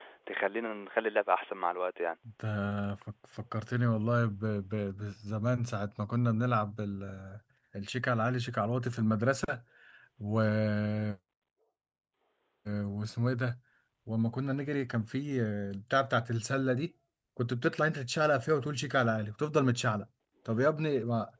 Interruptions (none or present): none